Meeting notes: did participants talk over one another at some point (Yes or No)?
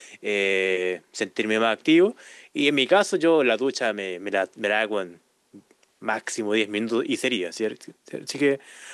No